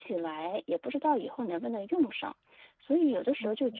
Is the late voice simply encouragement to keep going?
Yes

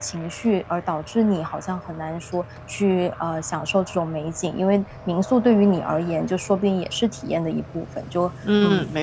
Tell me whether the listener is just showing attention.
No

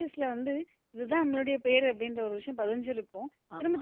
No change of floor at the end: Yes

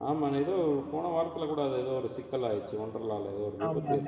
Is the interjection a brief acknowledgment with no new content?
No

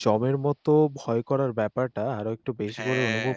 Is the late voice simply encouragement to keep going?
Yes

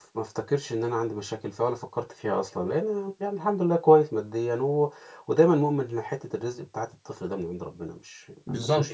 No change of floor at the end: No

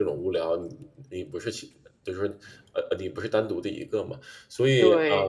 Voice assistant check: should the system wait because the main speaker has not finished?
No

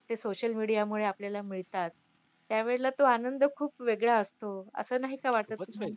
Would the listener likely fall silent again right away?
No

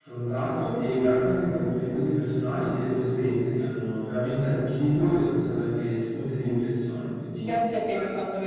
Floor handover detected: Yes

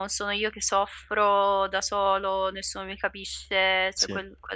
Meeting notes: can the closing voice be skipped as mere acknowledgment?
Yes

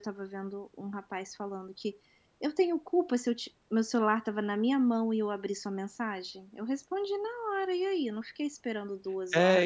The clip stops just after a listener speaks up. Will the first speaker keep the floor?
No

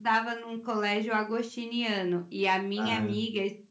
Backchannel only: Yes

